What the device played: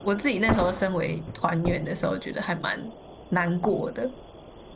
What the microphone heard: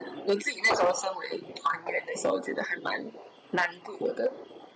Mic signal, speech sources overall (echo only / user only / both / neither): echo only